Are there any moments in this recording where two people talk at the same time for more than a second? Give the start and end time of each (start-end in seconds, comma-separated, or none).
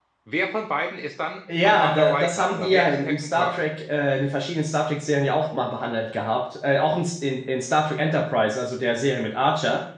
1.6-3.6